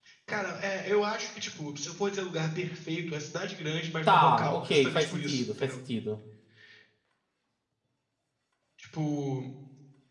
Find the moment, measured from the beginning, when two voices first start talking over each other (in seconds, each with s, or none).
4.1 s